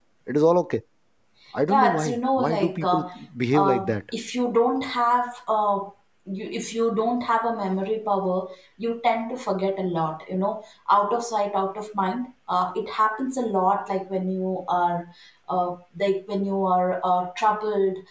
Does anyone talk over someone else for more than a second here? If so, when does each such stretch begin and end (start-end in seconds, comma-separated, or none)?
1.7-3.0